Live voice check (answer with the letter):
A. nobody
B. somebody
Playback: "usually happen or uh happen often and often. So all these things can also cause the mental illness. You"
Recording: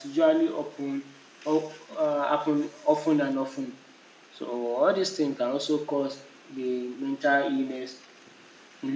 A